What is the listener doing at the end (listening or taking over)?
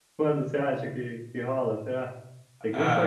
taking over